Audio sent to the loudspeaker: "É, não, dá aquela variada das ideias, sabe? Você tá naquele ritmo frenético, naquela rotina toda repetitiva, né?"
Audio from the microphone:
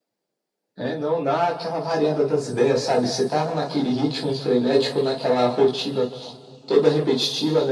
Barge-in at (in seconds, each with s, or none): none